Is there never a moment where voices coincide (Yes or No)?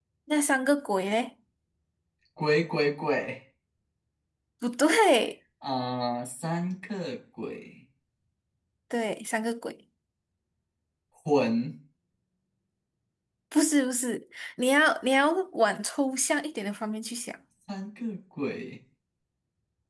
Yes